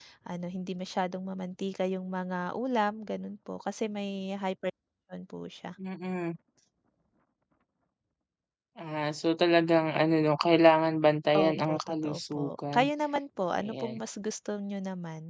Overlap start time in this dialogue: 11.5 s

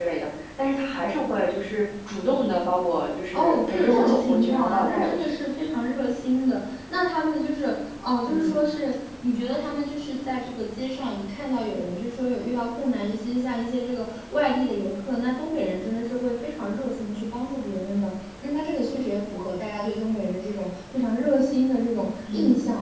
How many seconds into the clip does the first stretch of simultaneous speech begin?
3.3 s

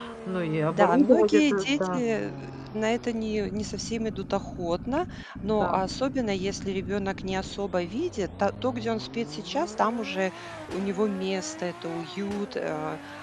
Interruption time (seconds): 0.7 s

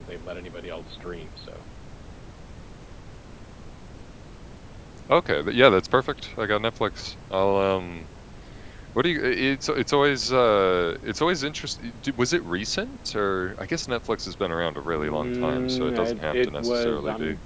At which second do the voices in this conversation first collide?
14.9 s

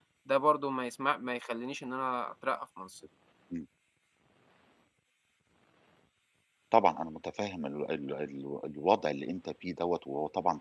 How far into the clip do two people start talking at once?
none

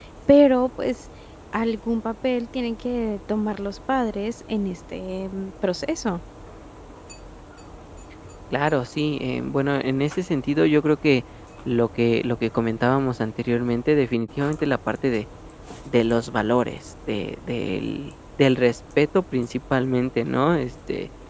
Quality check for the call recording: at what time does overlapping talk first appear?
none

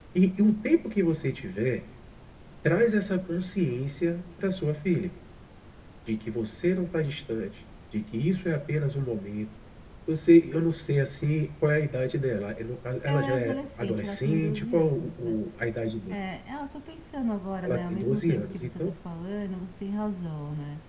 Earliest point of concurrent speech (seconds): 13.1 s

